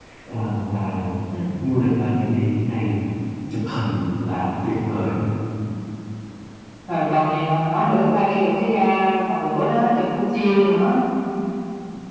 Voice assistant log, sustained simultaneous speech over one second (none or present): none